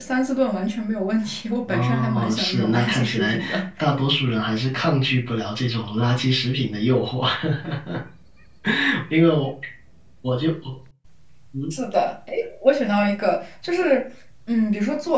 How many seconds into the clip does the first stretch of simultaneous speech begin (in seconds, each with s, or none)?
1.7 s